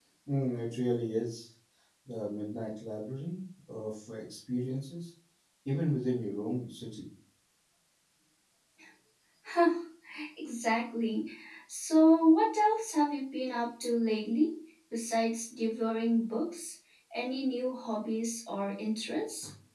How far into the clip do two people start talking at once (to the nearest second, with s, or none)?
none